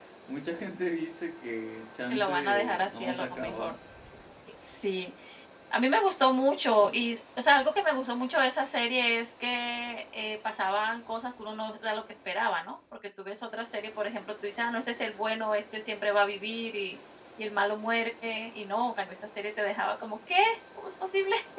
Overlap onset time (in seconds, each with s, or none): 2.1 s